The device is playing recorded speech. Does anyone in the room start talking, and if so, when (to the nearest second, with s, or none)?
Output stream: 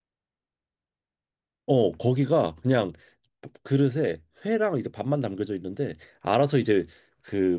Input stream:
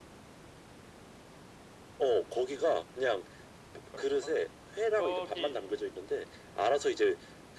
4 s